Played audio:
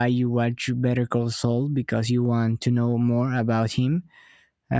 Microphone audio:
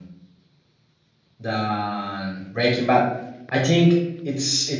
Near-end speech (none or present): present